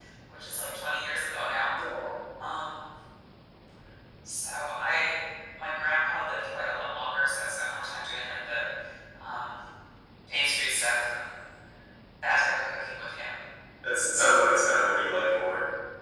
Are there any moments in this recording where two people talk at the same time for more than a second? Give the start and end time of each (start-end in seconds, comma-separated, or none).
none